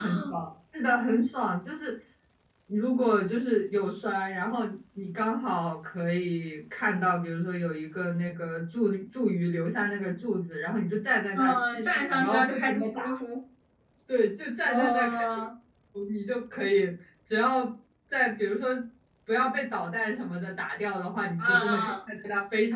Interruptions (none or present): present